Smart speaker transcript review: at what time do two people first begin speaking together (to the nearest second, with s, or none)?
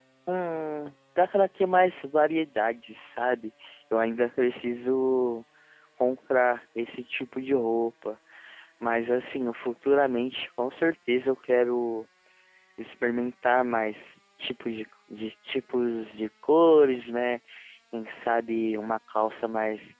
none